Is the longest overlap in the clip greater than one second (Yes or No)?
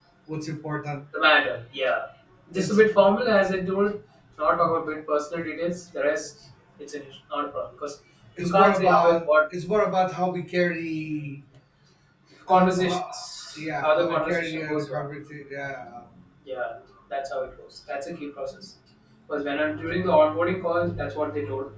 Yes